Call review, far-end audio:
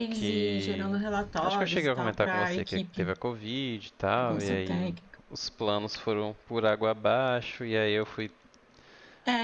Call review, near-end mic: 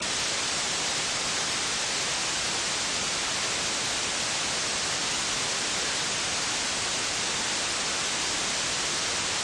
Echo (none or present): none